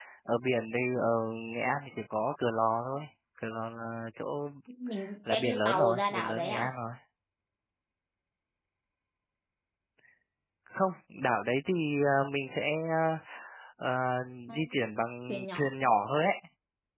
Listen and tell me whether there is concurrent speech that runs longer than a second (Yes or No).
Yes